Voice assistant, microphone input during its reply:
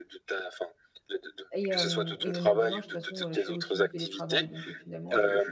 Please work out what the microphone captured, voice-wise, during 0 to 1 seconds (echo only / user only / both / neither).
echo only